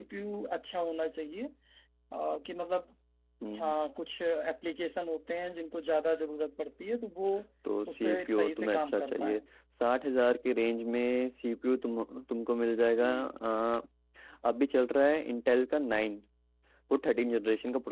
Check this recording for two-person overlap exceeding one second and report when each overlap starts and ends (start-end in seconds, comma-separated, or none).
8.0-9.4